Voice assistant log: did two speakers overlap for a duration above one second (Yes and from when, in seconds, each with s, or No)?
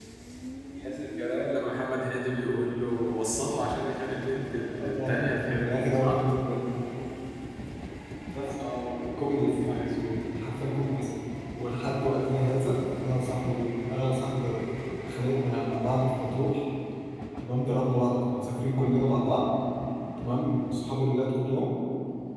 Yes, from 4.8 s